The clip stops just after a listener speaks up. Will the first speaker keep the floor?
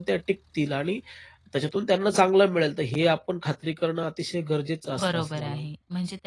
No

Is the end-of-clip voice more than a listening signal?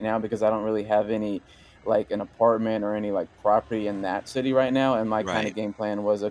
No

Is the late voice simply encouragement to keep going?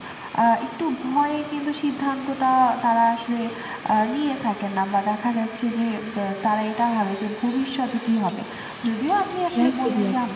Yes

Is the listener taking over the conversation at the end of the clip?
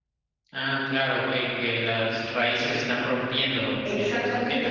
Yes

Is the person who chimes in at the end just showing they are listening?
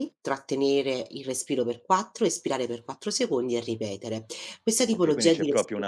No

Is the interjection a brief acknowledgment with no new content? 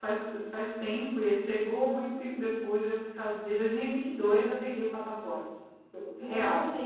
No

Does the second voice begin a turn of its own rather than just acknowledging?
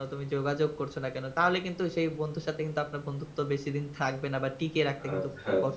Yes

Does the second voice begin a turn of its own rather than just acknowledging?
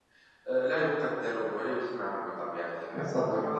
Yes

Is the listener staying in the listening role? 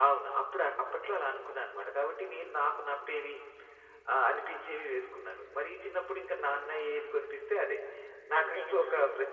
Yes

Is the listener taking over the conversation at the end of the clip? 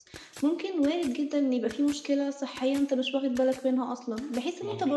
No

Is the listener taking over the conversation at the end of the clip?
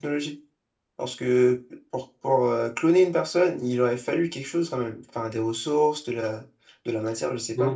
Yes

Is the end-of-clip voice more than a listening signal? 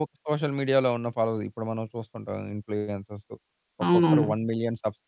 No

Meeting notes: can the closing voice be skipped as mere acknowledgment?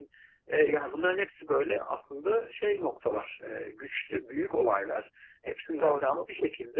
Yes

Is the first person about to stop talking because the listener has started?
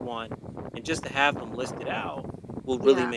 No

